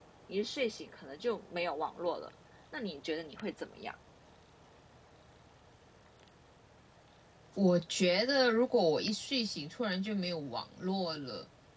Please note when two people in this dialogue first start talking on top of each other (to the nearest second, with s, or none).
none